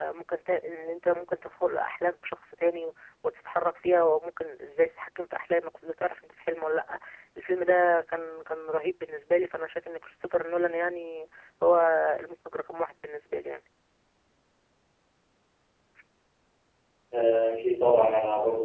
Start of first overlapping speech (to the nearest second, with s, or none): none